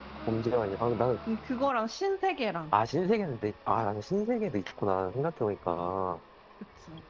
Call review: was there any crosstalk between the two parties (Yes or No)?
No